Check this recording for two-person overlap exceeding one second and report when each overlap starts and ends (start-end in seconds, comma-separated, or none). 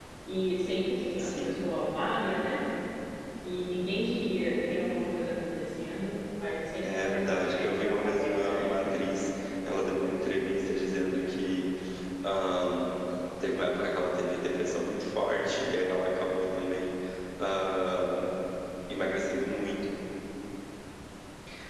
6.8-8.7